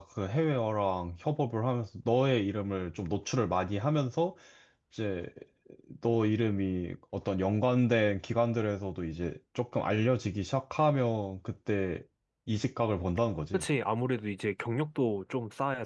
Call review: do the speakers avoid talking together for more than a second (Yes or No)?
Yes